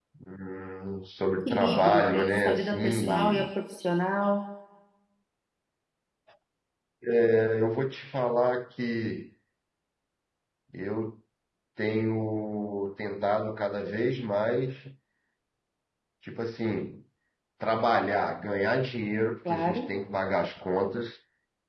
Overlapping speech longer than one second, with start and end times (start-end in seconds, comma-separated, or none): 1.5-3.5